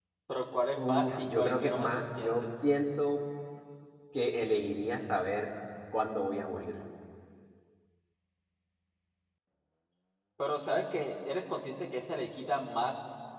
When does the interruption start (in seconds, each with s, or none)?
0.8 s